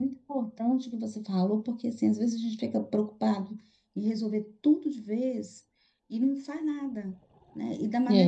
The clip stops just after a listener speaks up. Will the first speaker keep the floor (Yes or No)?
Yes